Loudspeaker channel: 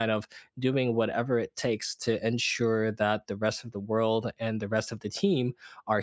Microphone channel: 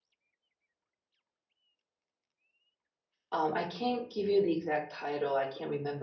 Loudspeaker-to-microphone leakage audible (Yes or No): No